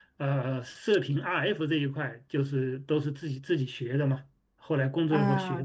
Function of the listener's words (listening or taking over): taking over